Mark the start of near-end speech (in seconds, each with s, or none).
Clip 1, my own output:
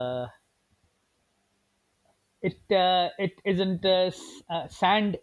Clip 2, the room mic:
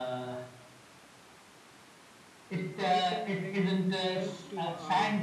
2.8 s